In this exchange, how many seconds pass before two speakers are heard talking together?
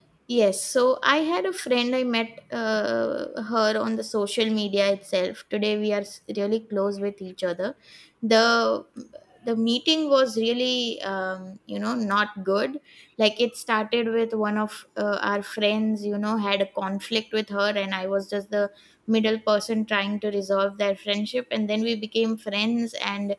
none

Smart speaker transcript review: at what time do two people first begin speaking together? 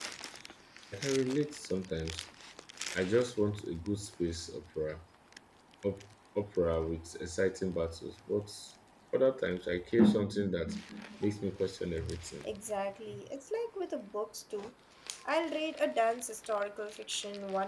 none

